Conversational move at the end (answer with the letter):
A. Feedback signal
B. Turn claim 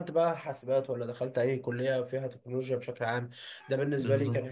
A